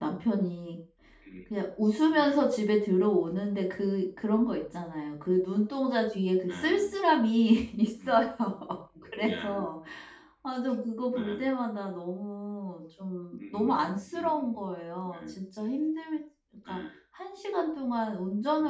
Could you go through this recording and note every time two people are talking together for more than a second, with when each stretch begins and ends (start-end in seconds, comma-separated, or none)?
13.4-14.6